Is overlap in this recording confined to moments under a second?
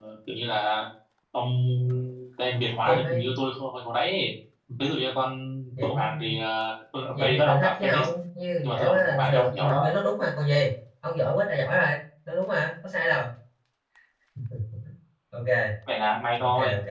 No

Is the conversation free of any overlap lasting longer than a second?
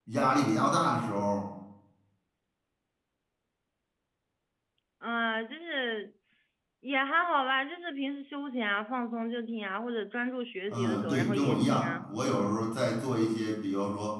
No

